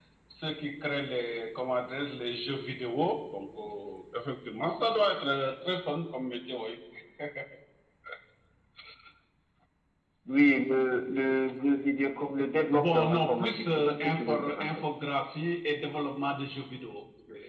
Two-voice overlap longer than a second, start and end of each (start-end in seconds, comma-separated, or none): 12.7-14.7